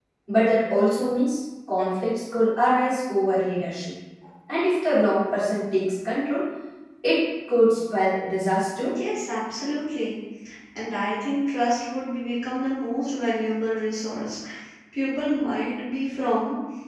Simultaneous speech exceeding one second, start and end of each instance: none

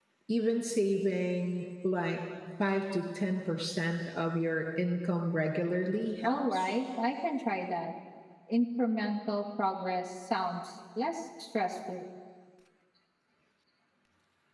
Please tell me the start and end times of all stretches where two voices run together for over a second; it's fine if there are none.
none

